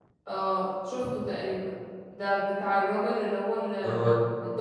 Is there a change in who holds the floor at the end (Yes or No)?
No